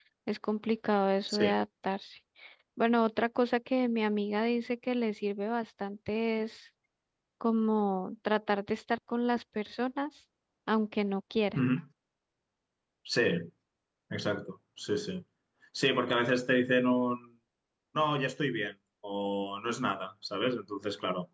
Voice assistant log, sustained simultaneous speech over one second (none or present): none